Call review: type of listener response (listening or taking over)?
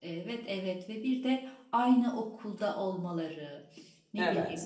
listening